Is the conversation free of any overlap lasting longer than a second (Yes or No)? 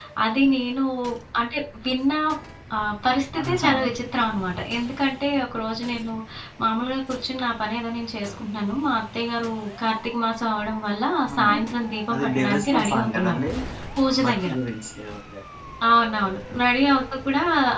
No